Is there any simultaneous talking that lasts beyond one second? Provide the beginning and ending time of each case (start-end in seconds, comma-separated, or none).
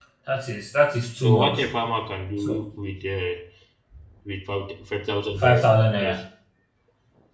none